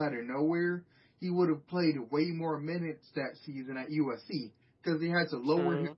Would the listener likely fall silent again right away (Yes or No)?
Yes